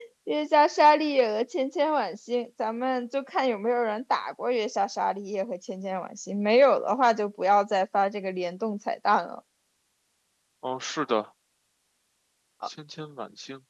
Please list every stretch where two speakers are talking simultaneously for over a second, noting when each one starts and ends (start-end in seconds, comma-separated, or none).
none